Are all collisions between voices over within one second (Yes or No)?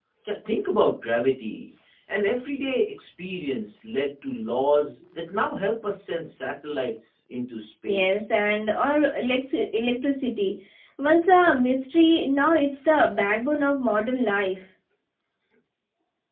Yes